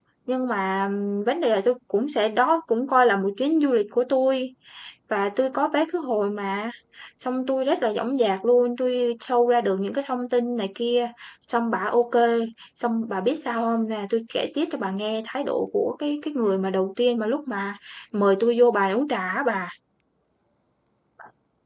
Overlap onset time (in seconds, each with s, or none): none